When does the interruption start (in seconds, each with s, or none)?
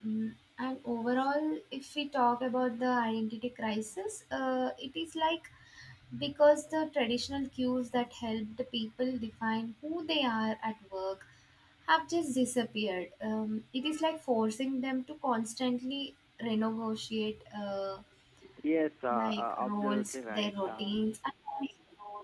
19.1 s